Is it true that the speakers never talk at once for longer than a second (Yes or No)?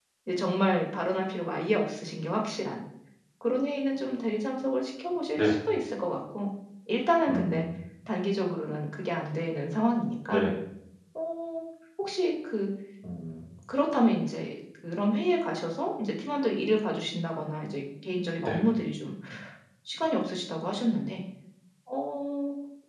Yes